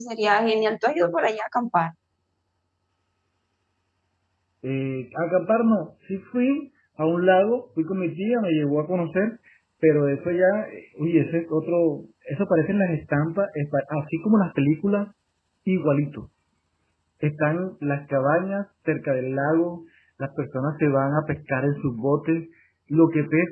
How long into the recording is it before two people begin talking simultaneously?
none

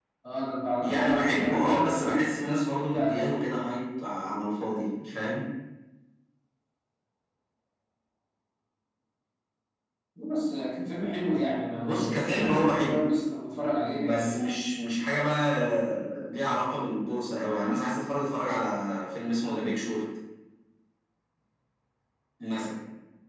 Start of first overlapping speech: 1 s

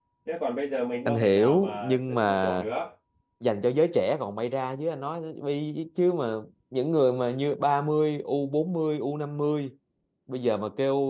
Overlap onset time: 1 s

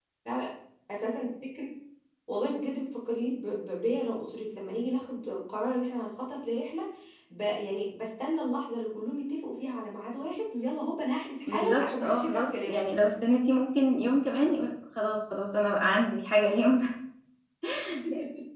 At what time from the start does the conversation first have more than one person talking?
11 s

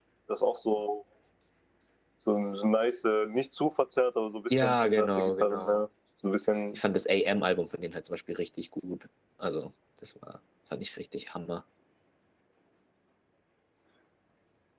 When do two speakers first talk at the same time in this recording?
5 s

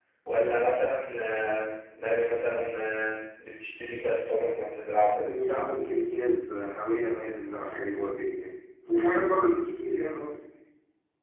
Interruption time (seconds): none

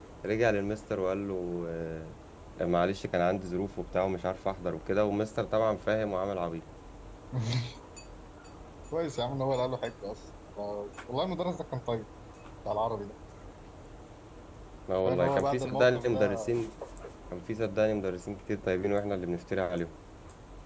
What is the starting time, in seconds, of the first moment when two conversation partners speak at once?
15 s

